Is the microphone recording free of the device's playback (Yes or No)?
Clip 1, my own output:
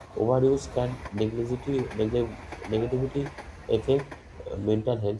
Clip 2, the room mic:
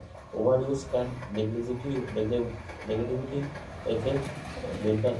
No